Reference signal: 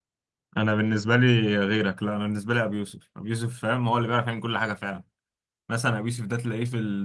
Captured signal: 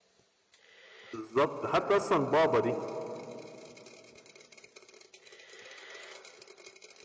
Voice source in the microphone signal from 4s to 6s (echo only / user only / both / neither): neither